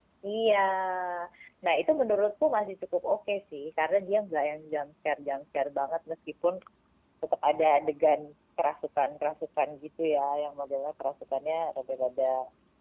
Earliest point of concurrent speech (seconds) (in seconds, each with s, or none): none